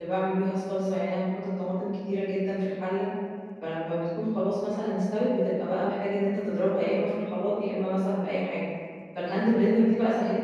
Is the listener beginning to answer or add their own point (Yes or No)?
No